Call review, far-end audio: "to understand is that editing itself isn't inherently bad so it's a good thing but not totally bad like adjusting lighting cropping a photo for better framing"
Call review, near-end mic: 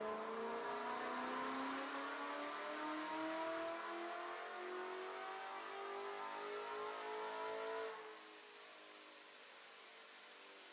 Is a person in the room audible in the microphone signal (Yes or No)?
No